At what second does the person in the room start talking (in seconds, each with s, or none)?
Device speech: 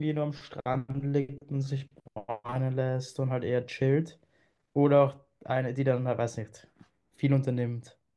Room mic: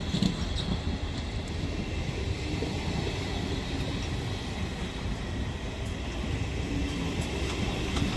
none